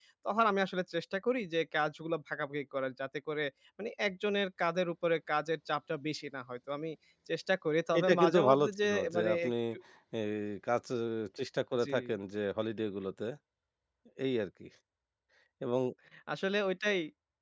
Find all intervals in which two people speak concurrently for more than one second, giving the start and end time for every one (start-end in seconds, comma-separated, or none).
8.0-9.5